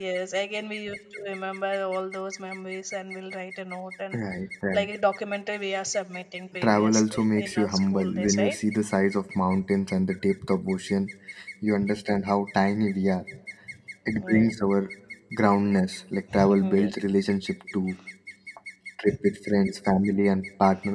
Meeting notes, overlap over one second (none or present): present